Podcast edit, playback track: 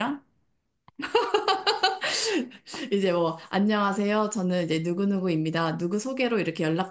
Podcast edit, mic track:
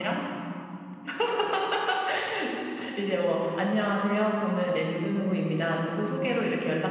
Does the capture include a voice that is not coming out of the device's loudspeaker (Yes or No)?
No